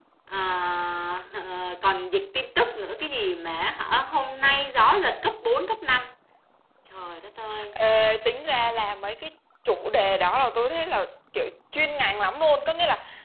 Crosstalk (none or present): none